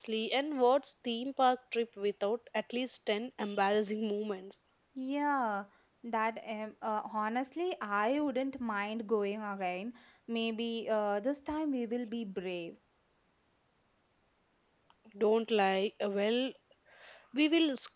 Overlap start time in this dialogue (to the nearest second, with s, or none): none